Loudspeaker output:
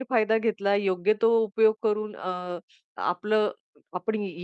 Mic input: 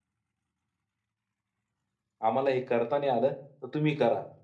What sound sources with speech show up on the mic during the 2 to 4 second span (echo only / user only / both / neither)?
user only